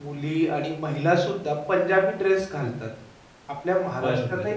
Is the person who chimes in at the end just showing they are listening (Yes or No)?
Yes